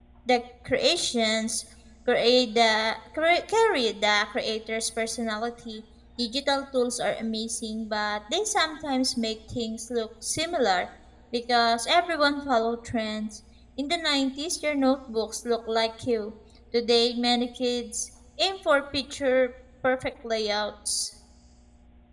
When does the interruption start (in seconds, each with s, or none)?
none